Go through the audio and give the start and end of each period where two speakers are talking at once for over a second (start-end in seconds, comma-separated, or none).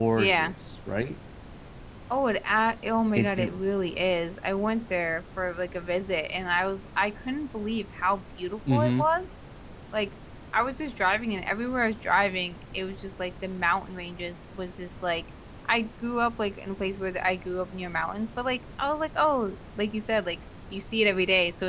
none